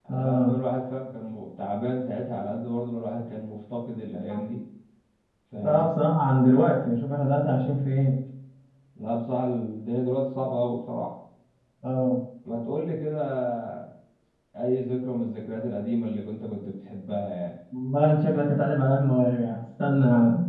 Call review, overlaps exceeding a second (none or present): none